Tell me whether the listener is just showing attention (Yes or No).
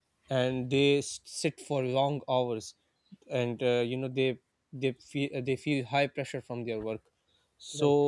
Yes